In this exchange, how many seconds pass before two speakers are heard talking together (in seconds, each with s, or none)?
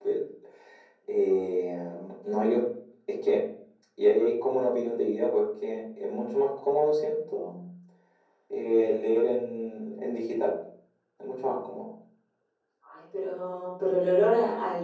none